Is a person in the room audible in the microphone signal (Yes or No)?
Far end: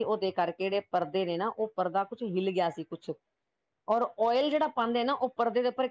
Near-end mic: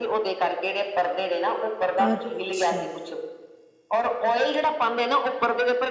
Yes